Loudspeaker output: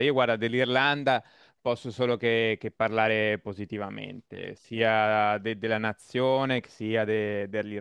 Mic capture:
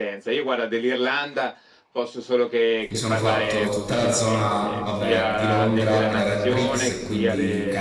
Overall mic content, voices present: both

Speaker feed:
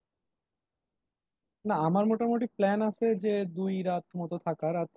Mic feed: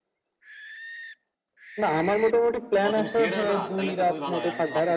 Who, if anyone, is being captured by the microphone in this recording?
both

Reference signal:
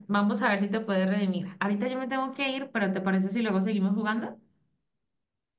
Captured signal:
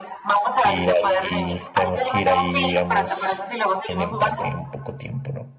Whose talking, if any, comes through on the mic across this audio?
both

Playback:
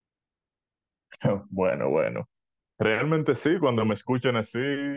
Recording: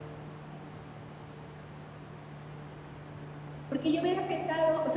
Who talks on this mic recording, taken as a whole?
user only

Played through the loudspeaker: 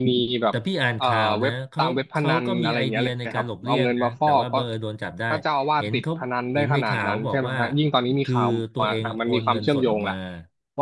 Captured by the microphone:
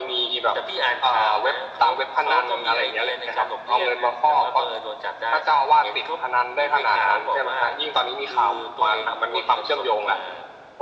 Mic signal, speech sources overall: echo only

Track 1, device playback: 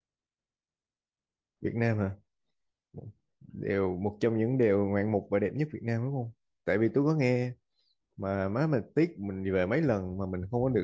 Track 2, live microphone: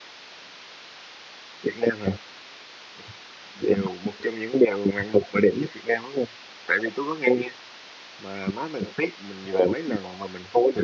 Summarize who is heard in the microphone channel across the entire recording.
echo only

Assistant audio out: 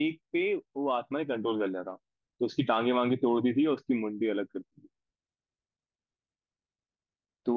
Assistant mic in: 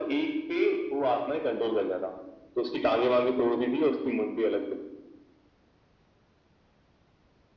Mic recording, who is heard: echo only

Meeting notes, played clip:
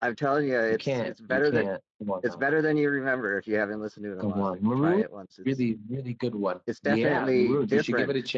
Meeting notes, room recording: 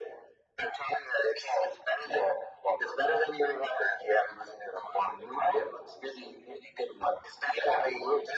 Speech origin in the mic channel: echo only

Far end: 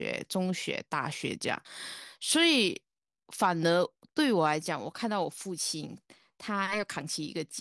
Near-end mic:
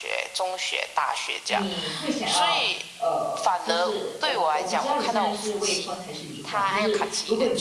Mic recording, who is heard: both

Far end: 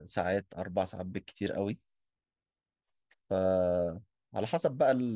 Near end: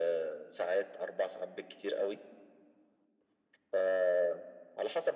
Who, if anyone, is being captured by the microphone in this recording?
echo only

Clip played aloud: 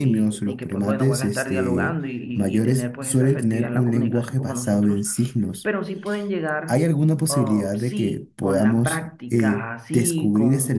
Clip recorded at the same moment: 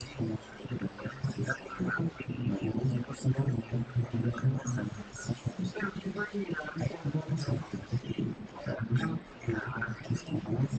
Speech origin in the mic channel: echo only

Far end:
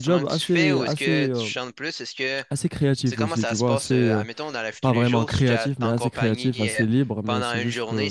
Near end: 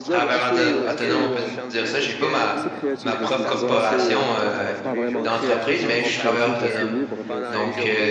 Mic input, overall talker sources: both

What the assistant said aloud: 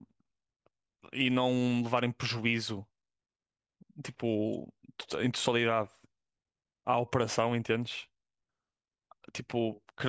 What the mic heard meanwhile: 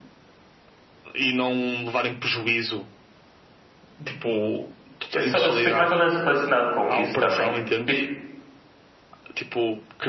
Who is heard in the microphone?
both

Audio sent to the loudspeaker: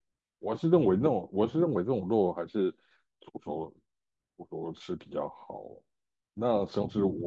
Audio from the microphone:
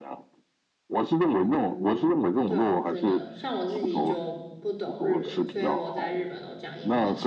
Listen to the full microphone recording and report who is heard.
both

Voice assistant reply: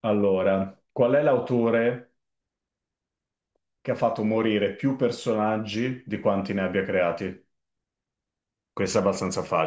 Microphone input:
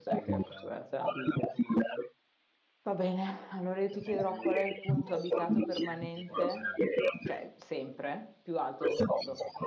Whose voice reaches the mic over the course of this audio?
both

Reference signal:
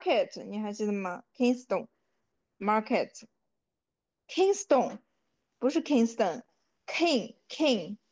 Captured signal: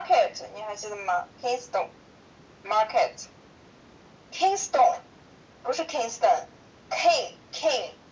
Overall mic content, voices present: echo only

